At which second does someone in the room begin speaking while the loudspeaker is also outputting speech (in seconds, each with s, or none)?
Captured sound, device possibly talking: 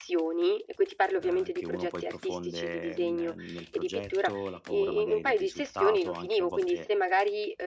1.2 s